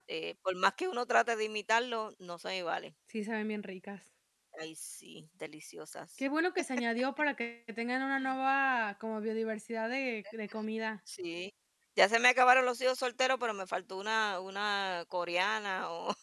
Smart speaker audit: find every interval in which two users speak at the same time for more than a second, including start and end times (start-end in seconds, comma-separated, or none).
none